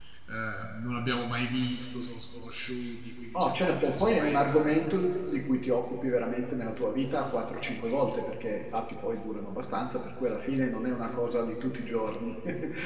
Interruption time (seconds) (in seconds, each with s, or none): 3.3 s